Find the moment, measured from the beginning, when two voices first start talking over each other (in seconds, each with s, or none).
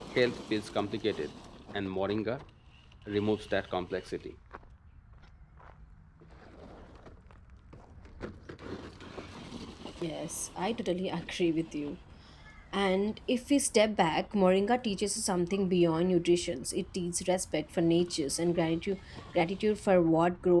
none